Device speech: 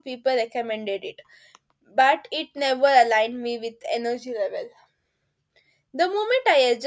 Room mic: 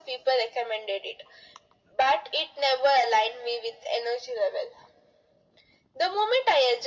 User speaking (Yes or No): No